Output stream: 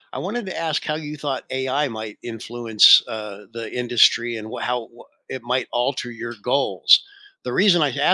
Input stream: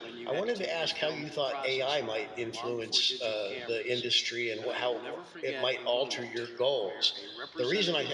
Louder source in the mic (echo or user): echo